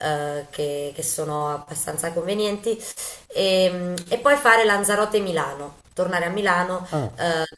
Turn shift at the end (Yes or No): No